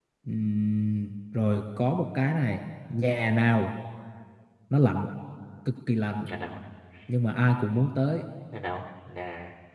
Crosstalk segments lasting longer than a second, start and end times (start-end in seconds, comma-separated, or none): none